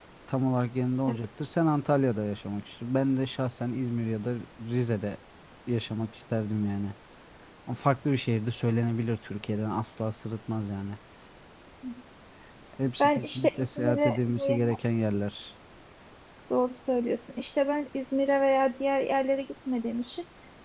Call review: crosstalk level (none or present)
present